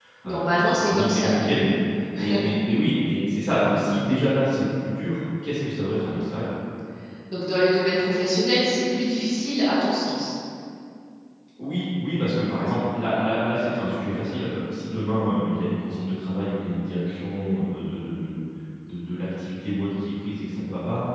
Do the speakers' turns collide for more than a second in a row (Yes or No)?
Yes